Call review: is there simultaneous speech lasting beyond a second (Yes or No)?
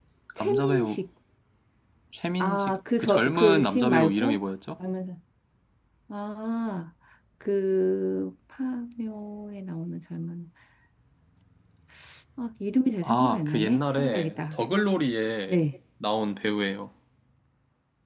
Yes